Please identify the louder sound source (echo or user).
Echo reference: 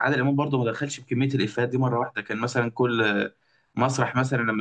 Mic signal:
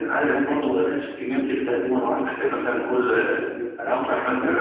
echo